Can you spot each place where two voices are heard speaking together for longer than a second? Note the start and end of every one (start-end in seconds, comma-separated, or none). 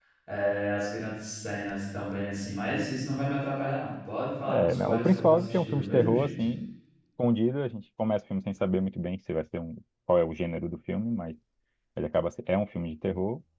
4.5-6.3